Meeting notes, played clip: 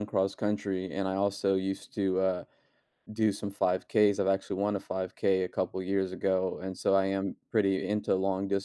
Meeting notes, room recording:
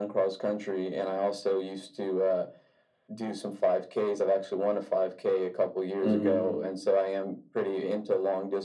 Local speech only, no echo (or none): Mhm.